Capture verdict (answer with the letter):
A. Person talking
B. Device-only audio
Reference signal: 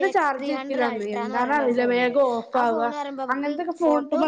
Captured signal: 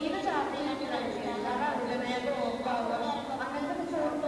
B